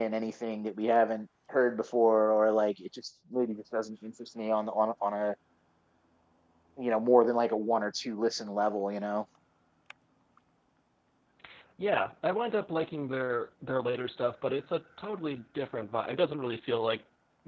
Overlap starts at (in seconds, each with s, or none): none